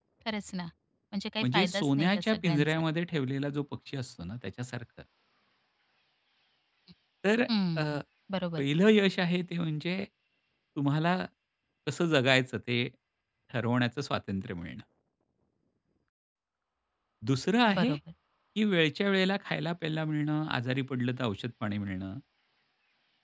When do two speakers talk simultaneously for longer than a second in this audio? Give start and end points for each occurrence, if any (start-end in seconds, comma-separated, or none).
1.4-2.8